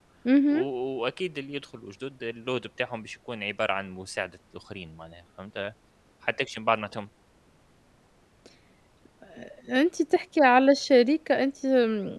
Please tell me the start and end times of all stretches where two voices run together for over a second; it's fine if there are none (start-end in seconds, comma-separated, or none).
none